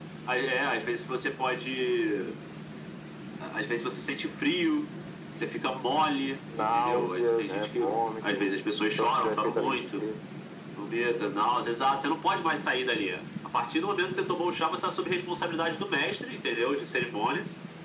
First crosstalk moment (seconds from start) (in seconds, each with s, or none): 6.5 s